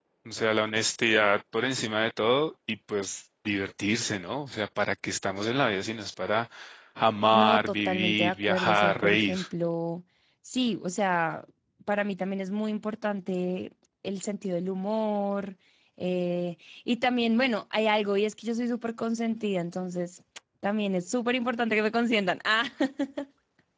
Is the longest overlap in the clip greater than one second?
Yes, from 7.3 s

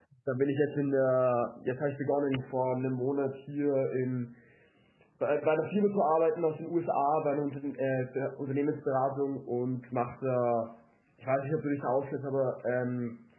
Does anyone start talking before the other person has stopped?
No

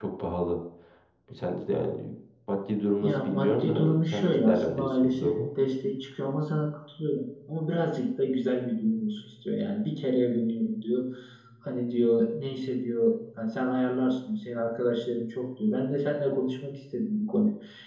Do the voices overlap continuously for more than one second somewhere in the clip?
Yes, from 3.0 s

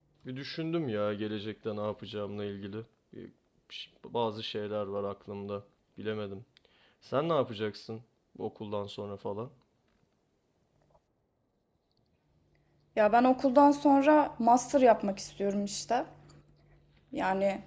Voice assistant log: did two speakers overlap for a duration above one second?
No

